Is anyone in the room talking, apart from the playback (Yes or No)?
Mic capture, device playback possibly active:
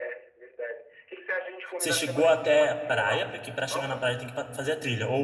Yes